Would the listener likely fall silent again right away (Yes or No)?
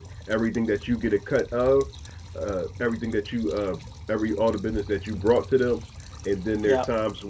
Yes